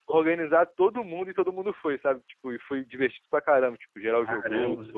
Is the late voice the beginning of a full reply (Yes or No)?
No